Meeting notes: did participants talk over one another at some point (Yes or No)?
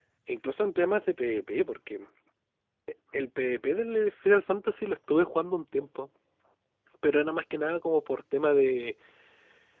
No